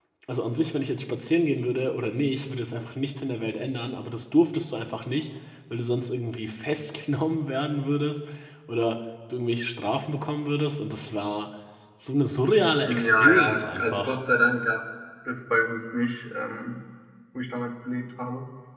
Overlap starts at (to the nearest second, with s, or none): 13 s